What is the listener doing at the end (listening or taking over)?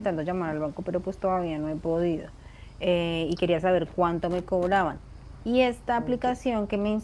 listening